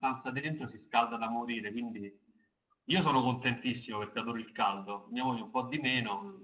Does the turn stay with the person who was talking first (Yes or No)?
No